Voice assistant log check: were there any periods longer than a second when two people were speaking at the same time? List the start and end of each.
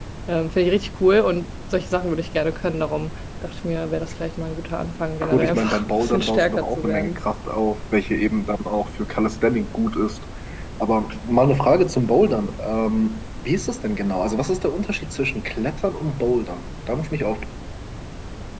5.3-7.2

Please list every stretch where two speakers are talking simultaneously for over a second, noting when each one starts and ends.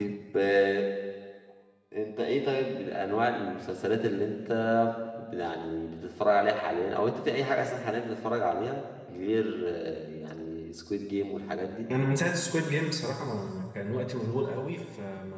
none

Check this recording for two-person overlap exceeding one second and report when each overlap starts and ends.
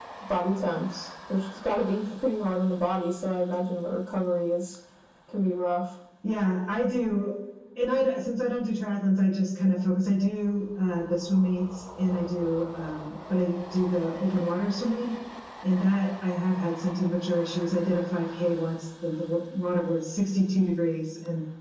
none

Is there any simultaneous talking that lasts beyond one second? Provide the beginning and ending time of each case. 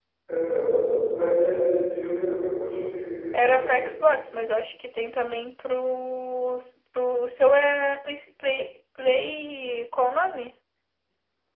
none

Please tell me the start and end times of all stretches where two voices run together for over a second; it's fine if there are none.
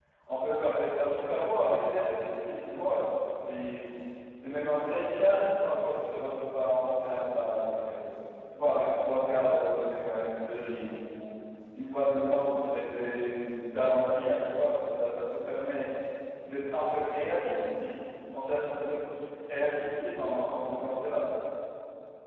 none

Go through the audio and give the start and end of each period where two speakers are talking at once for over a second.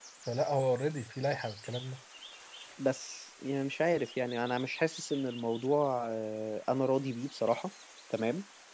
none

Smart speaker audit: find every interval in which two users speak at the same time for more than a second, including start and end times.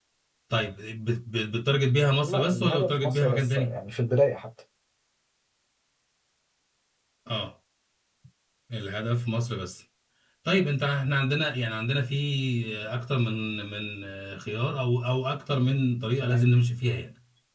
2.2-3.8

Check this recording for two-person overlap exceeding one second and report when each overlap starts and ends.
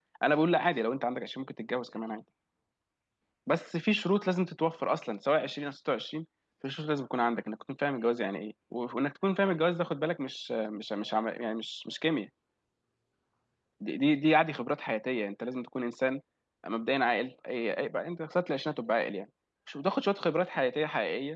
none

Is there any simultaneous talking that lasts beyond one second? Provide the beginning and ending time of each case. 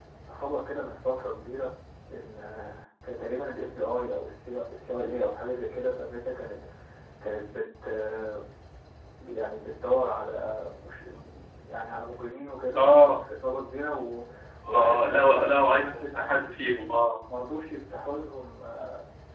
14.7-16.4

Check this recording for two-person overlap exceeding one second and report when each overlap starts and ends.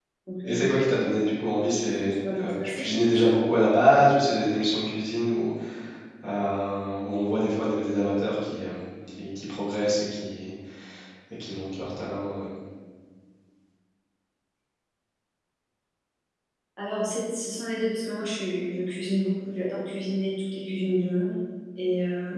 1.6-2.9

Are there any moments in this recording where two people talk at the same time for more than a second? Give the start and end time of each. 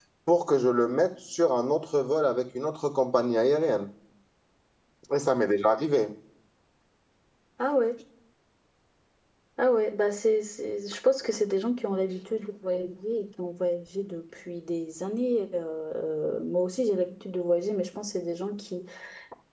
none

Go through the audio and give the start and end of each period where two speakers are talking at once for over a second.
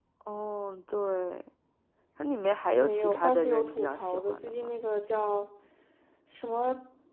2.8-4.7

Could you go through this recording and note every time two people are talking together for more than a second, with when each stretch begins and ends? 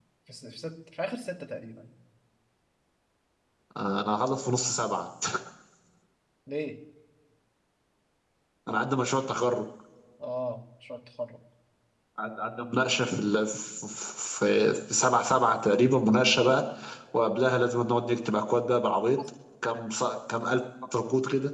none

